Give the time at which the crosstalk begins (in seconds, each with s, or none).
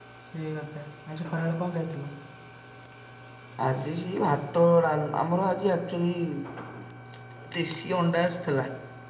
none